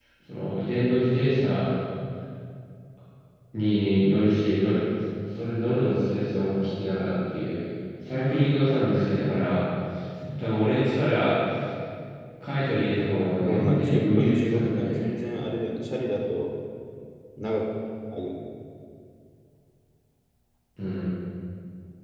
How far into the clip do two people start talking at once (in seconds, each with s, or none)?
13.4 s